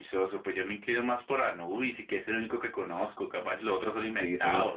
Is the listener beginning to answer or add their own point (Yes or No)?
Yes